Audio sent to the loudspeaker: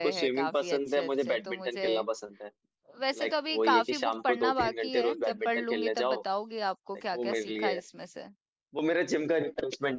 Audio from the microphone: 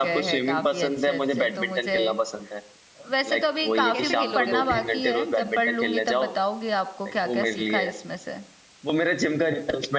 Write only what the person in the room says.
कैसे खेलोगे बैडमिंटन

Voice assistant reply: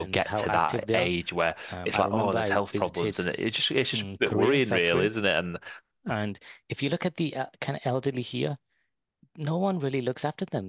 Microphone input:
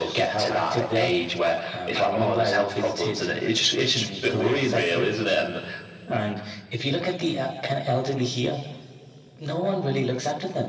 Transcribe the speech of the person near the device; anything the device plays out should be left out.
none

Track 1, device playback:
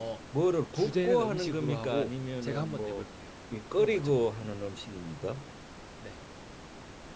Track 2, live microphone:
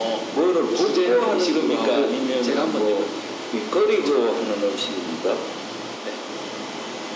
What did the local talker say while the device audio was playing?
none

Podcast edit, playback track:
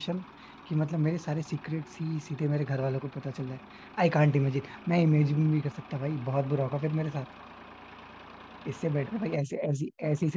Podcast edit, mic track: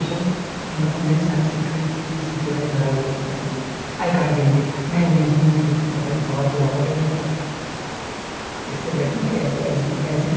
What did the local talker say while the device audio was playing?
none

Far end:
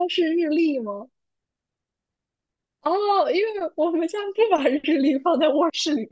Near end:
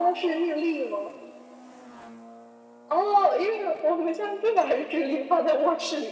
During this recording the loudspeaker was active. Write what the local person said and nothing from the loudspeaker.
none

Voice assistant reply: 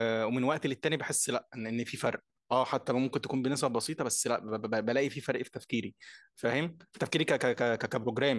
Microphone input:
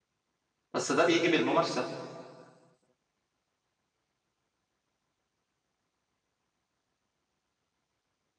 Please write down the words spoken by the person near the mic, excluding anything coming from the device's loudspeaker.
بس ده بيجي بالممارسة

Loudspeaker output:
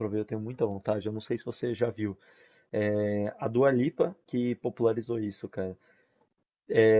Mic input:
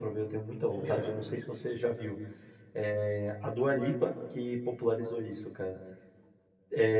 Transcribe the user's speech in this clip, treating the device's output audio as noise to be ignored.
E, meu,

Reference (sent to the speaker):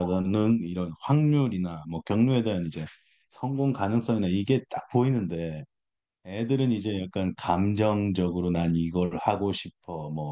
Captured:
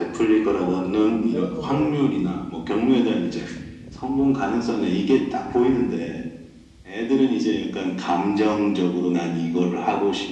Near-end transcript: 그래도 뭐,

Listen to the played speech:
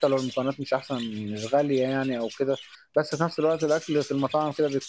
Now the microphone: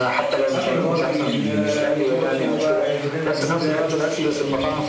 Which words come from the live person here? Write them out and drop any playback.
اكل غربي آه، الكرواسون بقى اذا كان البيتزا

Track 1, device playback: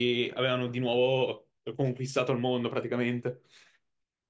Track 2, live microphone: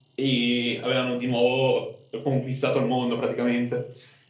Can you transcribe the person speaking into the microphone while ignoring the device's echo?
none

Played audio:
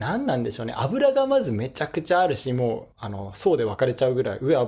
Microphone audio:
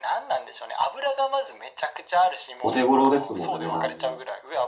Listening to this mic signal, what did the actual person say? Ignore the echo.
お手頃ですもんね、値段も。

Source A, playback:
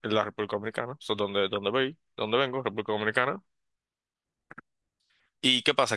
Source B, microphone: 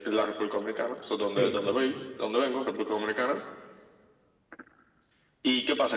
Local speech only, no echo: Sí.

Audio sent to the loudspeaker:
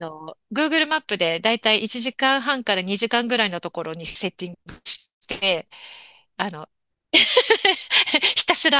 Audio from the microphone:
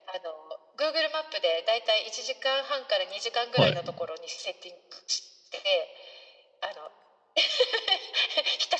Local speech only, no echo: はい。

